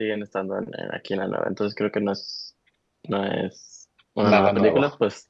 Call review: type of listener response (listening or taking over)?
listening